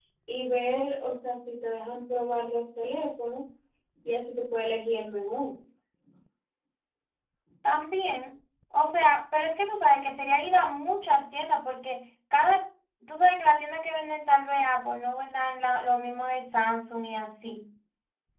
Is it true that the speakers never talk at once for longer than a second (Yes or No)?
Yes